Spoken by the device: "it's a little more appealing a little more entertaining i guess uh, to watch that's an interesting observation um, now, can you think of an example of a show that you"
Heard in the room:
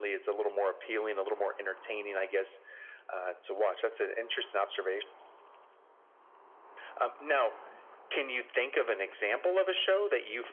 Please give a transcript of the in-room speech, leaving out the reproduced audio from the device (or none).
none